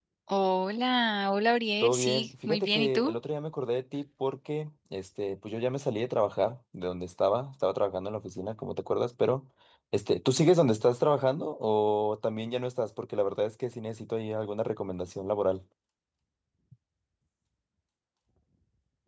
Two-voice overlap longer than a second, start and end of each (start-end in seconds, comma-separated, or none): 1.8-3.1